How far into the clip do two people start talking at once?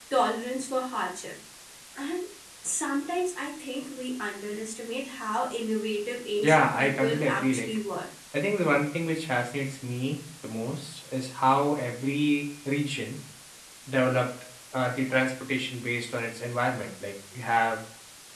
6.4 s

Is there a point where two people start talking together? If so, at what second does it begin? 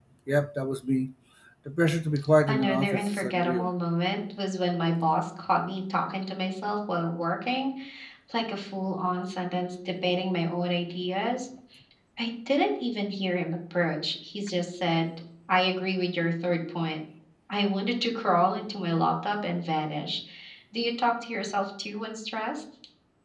2.5 s

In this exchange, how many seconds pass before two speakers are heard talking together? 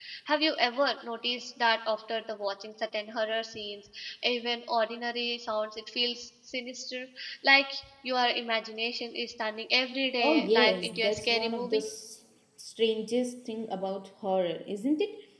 10.2 s

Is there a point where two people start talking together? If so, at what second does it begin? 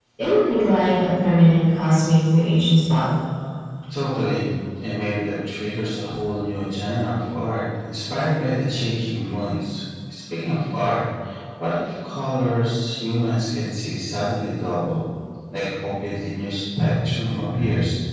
none

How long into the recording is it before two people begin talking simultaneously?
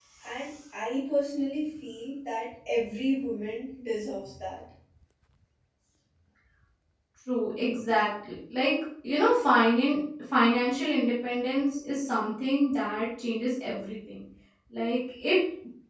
none

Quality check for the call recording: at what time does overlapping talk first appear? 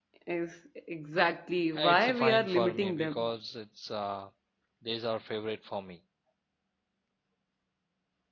1.8 s

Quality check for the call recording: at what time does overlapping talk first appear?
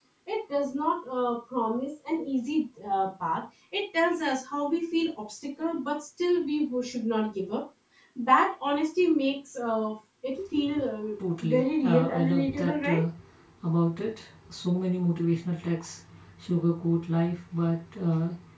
11.4 s

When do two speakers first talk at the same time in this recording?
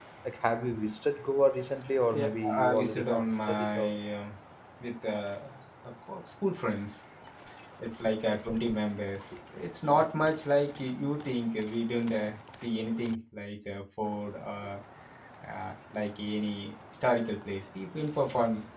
2.1 s

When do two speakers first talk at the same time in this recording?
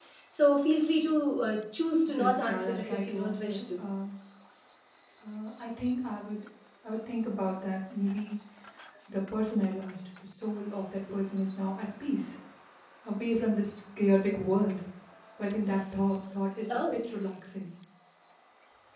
2.1 s

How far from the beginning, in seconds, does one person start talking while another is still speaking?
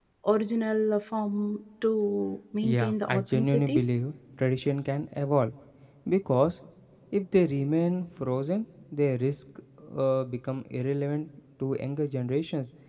2.6 s

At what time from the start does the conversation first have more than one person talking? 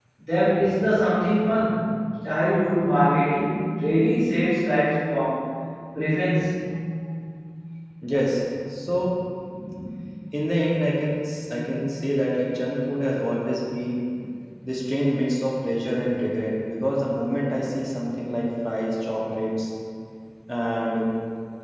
none

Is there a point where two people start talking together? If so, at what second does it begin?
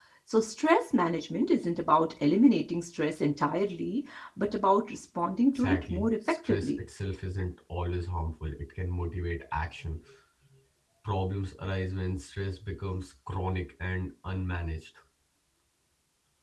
5.5 s

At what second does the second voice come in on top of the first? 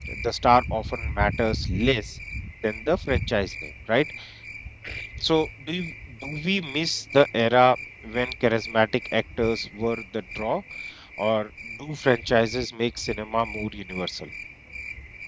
none

